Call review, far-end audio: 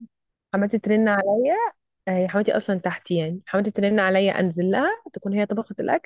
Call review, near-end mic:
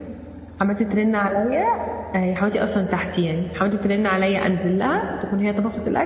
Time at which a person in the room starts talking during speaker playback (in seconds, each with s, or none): none